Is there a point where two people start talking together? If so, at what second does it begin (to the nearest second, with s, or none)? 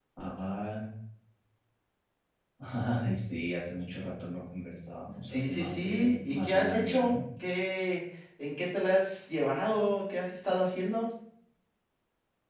5 s